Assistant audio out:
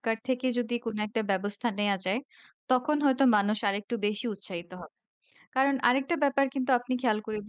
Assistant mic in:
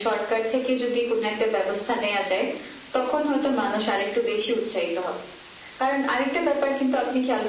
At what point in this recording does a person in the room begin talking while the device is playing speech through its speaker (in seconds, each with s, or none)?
none